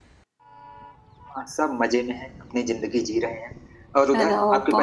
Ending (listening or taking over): taking over